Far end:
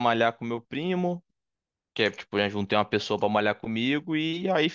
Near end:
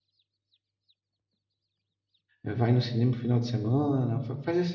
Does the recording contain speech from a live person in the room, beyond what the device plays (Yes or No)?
Yes